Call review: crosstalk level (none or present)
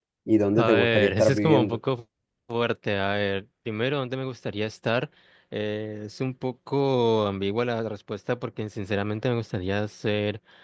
present